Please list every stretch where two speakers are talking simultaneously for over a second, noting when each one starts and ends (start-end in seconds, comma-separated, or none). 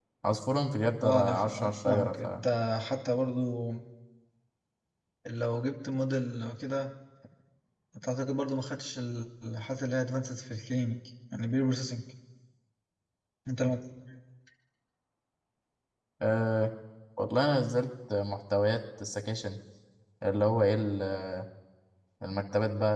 1.0-2.2